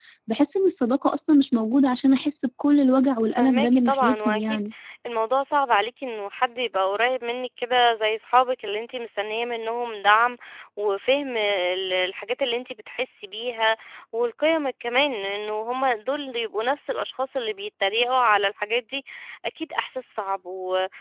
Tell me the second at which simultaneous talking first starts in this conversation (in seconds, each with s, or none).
3.4 s